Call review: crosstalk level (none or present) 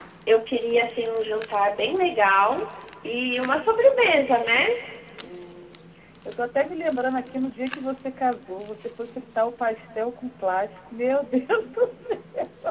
none